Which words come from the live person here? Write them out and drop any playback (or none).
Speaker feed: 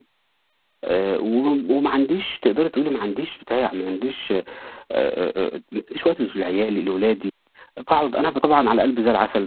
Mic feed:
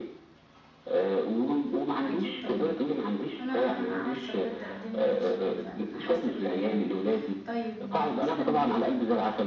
أكيد طبعًا. أنا عارفة بجد قد إيه الموضوع صعب فعلًا، أنا حاسة بيك فعلًا. طيب مثلًا